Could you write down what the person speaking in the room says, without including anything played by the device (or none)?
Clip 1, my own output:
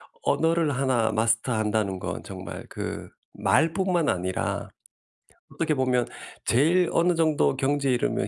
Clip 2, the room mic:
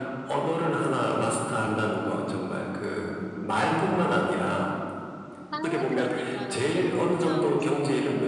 아 그러니까요. 그래서 저도 참